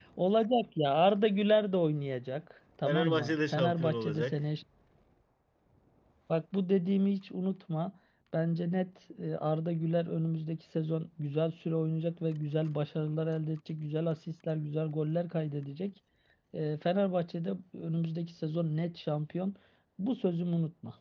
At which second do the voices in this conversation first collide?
3 s

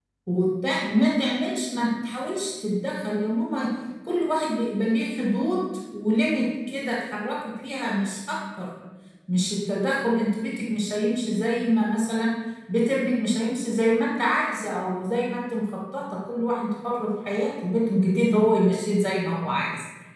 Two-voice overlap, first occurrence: none

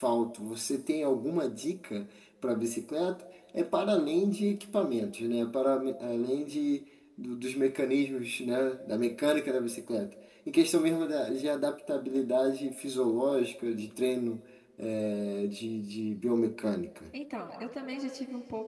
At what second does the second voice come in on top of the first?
none

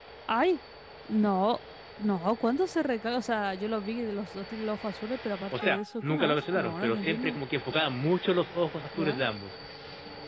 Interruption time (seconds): 6 s

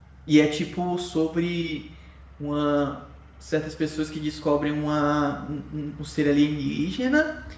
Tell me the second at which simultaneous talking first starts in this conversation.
none

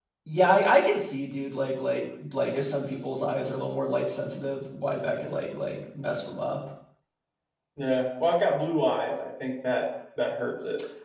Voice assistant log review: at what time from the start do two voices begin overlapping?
none

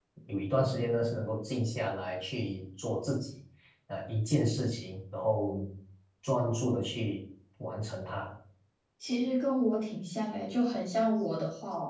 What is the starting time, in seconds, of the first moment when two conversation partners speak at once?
none

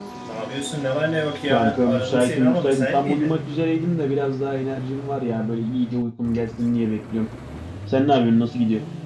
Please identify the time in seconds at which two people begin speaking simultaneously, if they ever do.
1 s

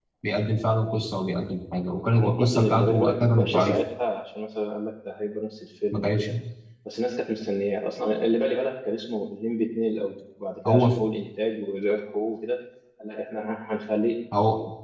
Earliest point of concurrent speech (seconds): 2 s

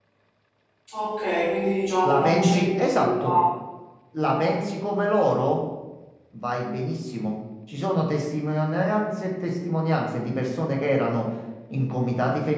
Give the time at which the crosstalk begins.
2 s

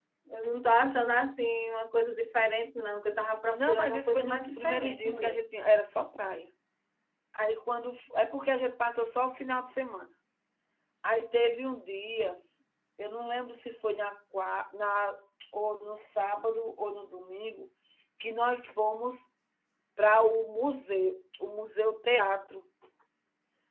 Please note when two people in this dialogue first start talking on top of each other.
4 s

